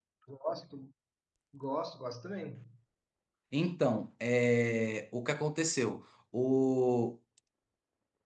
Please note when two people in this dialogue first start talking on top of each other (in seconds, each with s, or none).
none